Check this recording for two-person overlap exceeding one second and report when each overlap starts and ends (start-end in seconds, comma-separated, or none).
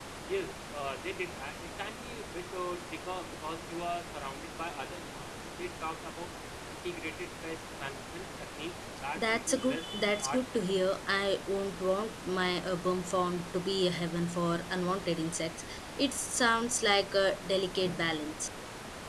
9.2-10.7